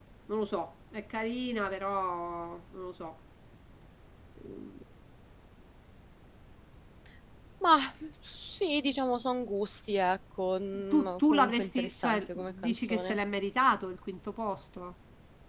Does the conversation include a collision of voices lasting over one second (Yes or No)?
Yes